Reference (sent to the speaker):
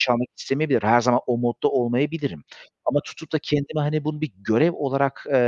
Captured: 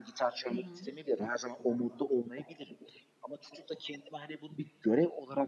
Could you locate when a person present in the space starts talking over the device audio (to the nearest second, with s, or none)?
0 s